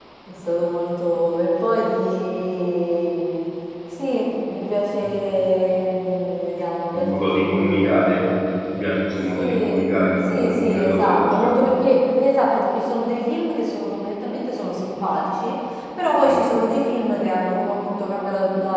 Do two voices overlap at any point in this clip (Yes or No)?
Yes